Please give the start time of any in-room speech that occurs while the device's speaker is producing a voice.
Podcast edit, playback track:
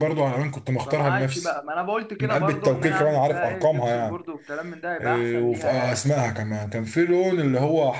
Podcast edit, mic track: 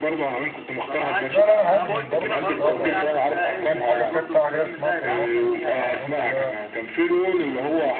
1.2 s

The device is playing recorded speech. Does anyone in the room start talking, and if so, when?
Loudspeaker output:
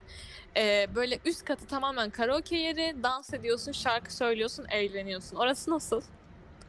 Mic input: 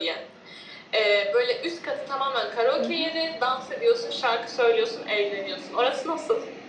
2.8 s

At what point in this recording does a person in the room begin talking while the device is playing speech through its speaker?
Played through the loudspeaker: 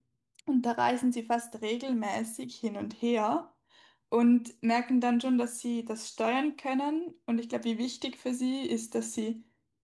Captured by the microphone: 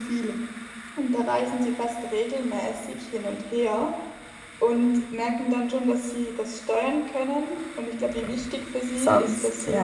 8.9 s

